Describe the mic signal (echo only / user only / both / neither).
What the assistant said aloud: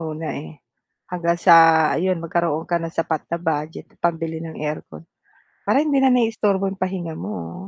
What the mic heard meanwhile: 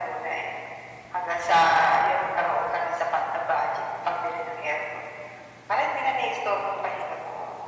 echo only